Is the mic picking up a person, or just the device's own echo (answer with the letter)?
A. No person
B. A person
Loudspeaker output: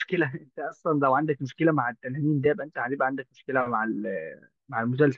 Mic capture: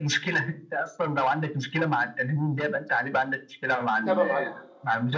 B